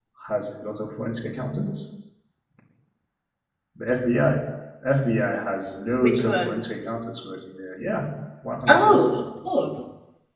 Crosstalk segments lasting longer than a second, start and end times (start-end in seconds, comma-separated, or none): none